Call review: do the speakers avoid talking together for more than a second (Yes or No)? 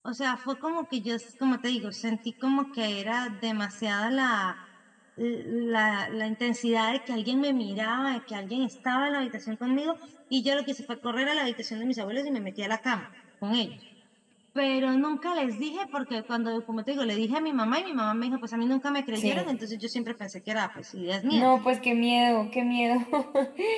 Yes